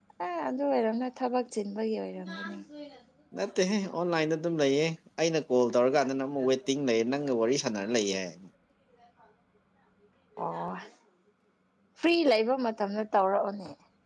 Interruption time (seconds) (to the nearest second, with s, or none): none